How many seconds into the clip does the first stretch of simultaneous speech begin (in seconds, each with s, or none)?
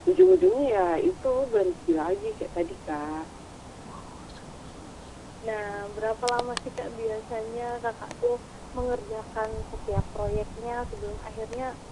none